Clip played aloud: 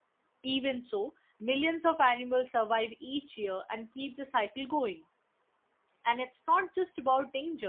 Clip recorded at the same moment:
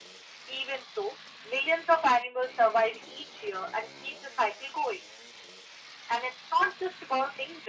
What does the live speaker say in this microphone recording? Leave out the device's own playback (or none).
none